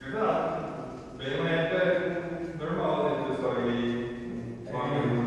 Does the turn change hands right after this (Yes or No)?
Yes